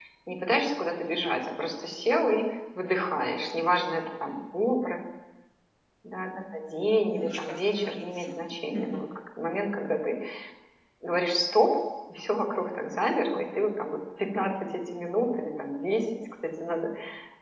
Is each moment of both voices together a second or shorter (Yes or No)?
No